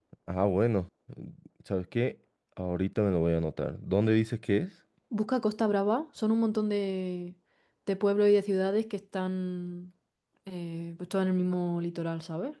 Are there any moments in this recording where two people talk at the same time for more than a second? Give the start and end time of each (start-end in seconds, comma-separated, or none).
none